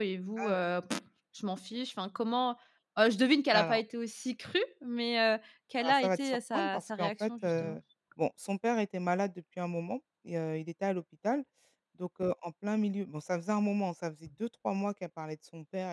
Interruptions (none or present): present